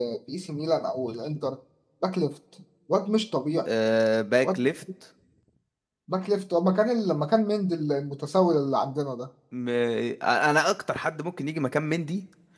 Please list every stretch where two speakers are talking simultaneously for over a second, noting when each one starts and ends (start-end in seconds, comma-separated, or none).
none